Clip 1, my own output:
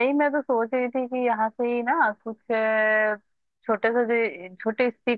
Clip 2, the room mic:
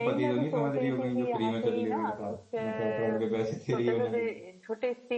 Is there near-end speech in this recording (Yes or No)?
Yes